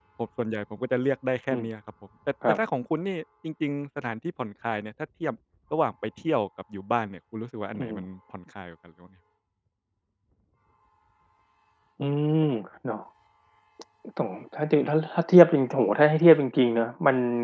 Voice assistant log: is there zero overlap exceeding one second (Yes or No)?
Yes